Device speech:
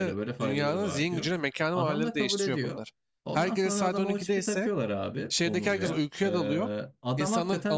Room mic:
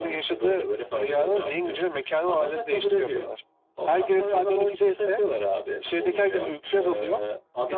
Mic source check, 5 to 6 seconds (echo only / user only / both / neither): echo only